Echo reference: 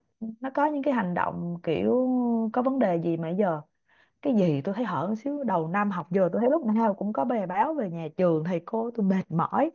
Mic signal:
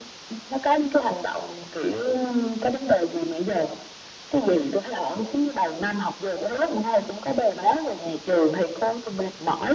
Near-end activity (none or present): none